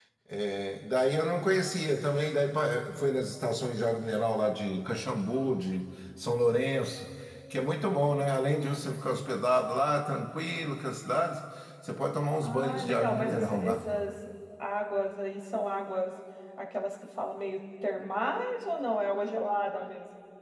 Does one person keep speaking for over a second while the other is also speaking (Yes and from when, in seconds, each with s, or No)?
Yes, from 12.4 s